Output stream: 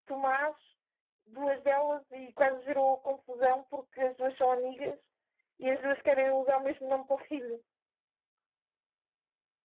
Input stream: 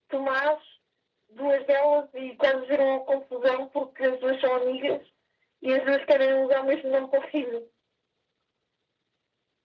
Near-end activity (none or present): none